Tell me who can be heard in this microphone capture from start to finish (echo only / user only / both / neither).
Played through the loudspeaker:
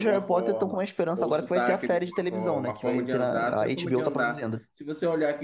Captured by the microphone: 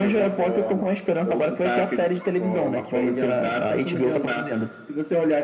echo only